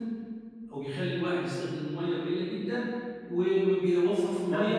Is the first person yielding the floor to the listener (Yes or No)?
No